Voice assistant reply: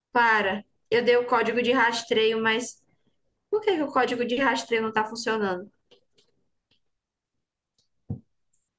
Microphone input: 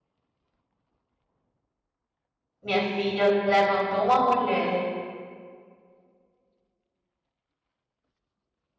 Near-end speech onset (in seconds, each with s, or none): 2.6 s